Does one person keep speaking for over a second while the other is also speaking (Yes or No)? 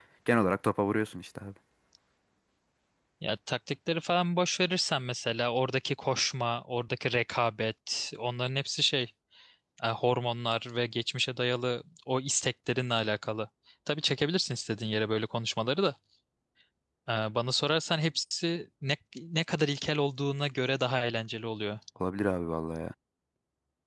No